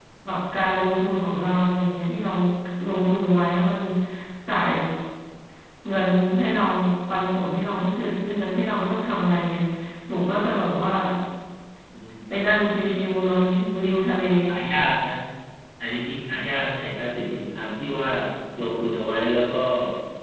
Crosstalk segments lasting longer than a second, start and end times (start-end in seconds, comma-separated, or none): none